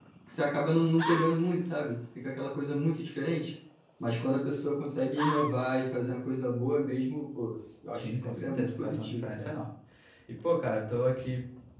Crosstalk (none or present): present